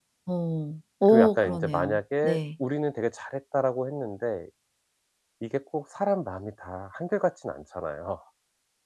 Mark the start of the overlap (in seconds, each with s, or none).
1.1 s